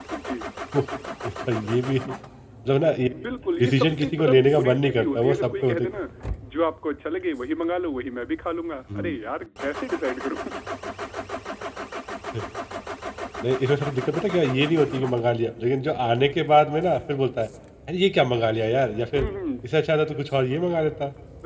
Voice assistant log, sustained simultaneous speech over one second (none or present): present